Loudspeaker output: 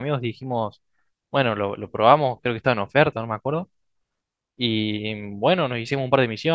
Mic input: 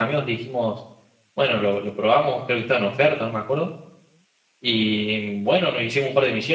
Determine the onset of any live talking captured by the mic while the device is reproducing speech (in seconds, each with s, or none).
none